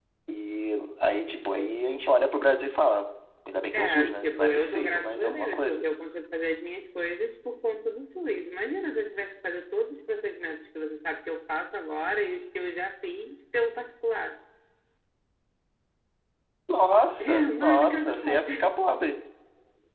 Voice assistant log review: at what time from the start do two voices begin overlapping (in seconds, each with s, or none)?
3.7 s